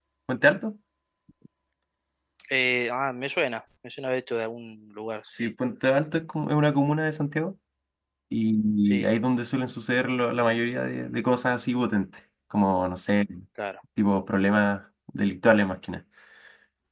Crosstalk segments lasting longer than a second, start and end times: none

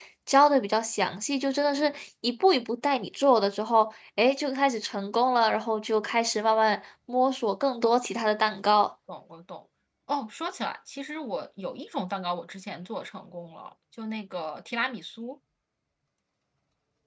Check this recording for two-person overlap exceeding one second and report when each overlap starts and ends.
none

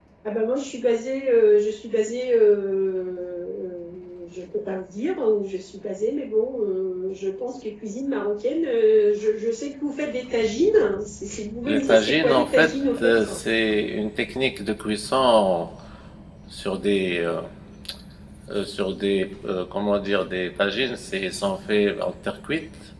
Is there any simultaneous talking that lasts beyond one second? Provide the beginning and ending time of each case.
11.7-13.2

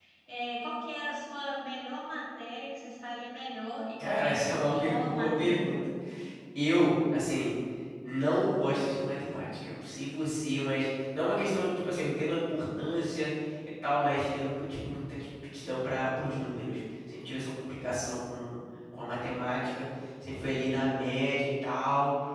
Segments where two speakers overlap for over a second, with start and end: 4.0-5.7

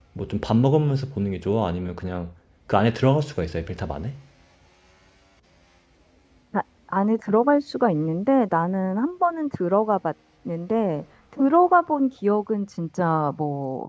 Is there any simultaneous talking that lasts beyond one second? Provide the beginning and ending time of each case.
none

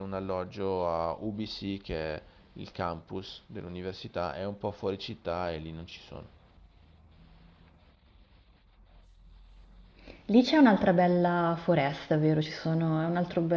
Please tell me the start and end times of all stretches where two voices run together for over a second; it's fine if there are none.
none

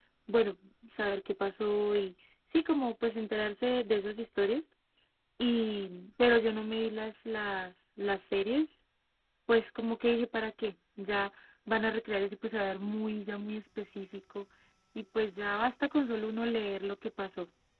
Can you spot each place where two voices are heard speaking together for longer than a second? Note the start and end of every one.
none

